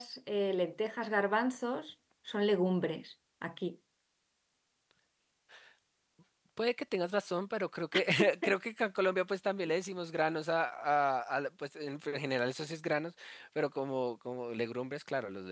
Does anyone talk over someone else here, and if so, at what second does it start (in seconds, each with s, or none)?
none